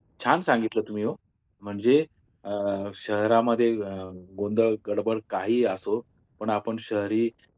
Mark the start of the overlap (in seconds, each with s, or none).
none